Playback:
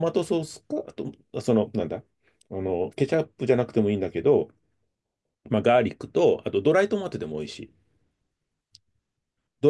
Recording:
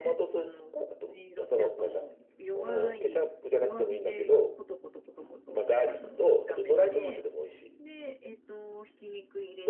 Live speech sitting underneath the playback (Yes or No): Yes